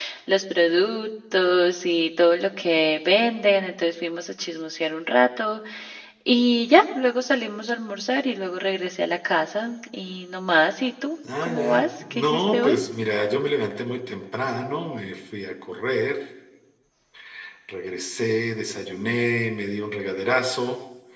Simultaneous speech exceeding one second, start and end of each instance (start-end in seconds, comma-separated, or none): 11.4-12.8